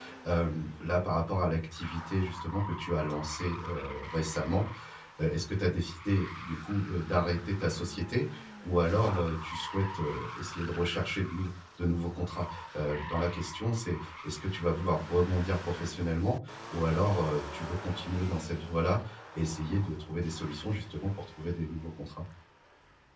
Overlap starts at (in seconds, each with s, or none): none